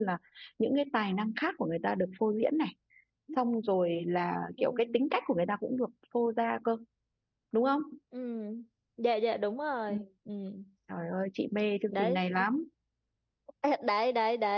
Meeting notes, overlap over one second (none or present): none